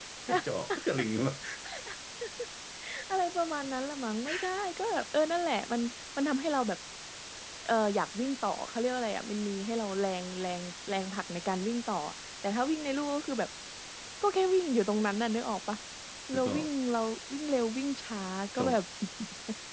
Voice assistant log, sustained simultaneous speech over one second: none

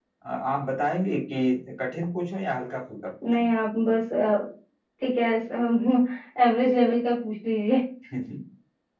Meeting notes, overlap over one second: none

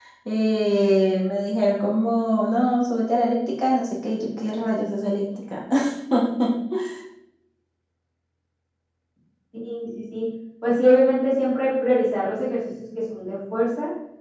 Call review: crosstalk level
none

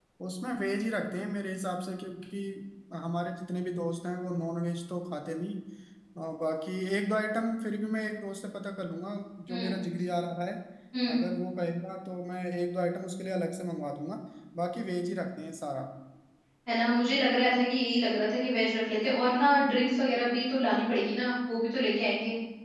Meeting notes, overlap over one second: none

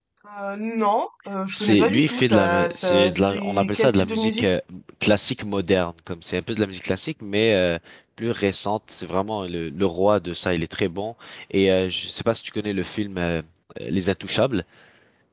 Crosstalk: present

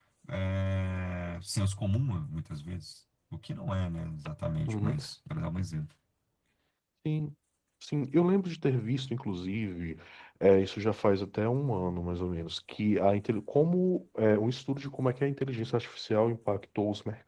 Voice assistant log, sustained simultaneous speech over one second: none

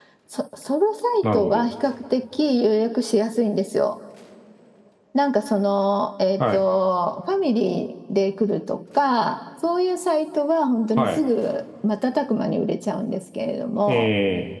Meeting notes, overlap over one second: none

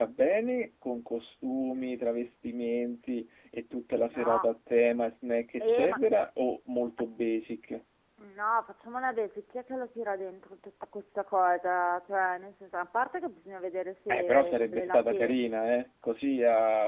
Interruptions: present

